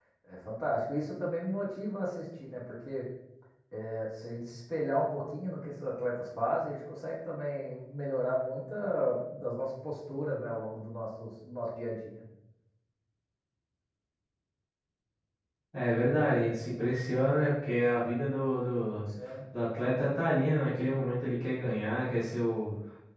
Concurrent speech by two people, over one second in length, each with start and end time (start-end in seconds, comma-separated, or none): none